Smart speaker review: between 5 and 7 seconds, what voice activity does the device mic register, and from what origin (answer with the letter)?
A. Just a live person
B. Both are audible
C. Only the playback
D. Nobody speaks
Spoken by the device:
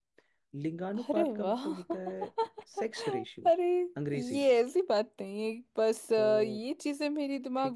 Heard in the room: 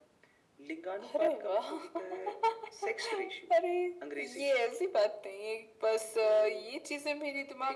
C